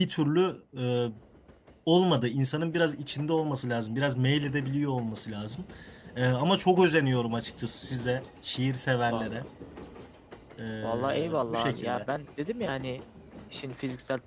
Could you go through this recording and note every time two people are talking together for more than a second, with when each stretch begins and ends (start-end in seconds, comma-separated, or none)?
10.8-12.1